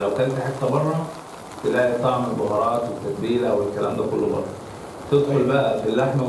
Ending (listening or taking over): listening